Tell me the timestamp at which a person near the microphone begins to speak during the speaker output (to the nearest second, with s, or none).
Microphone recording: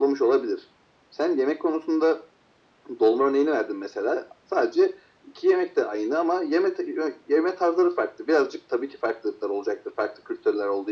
none